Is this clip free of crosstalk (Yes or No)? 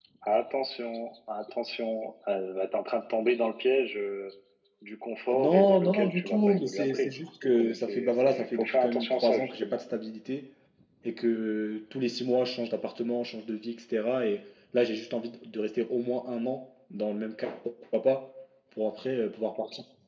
No